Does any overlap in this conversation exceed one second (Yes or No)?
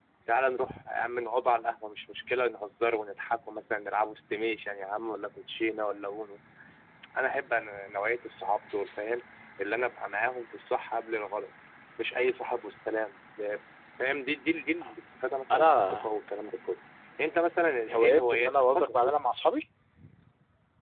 Yes